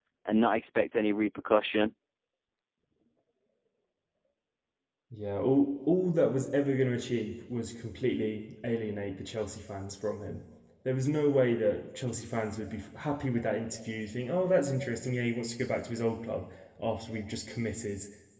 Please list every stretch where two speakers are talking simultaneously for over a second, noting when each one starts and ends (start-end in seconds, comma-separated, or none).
none